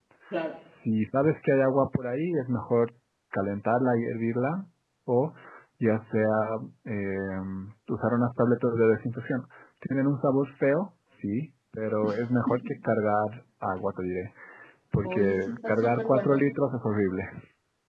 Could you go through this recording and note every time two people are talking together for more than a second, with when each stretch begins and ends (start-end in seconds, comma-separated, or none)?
15.0-16.4